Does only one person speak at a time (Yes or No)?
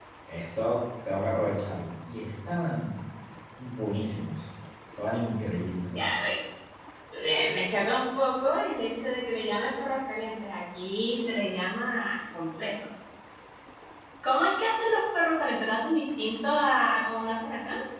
Yes